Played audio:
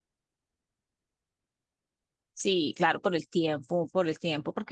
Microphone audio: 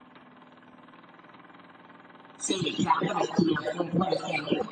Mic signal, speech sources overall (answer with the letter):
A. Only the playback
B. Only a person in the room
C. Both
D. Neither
A